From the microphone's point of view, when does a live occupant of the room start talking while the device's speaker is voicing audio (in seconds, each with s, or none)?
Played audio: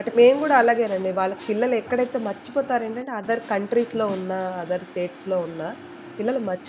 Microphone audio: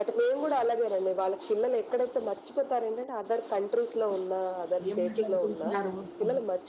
4.9 s